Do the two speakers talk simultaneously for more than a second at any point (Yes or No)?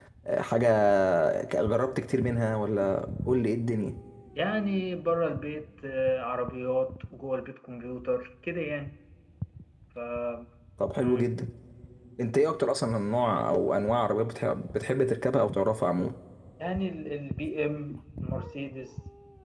No